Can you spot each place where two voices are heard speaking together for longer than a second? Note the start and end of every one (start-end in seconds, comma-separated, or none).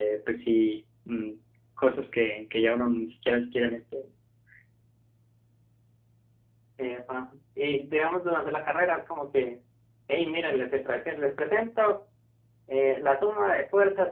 none